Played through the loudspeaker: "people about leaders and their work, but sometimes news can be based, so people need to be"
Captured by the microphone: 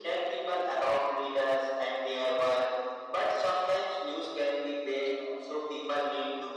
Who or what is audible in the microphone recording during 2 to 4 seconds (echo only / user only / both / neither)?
echo only